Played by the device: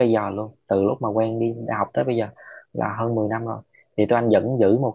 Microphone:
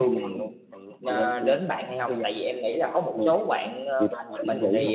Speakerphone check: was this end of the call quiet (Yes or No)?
No